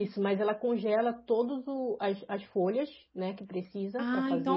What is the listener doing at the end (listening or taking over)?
taking over